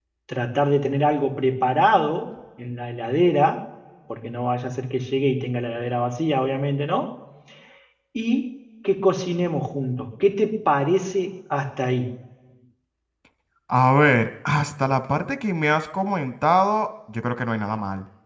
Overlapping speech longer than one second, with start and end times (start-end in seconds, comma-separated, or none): none